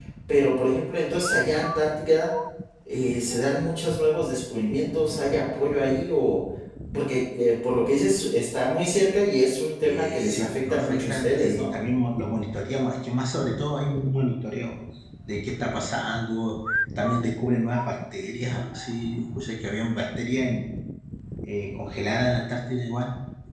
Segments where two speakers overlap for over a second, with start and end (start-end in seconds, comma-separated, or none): 9.8-11.7